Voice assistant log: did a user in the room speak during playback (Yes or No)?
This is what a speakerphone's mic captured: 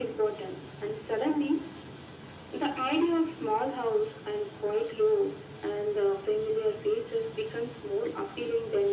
No